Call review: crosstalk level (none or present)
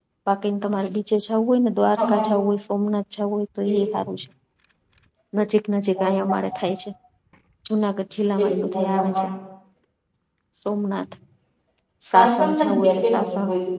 present